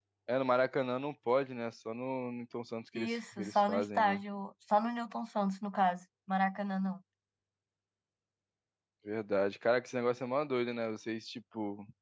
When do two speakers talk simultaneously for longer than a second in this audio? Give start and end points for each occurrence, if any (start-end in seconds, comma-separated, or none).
3.0-4.2